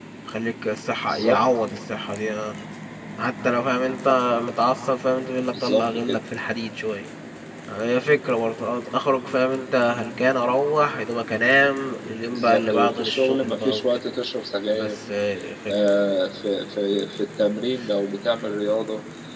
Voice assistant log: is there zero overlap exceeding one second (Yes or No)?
No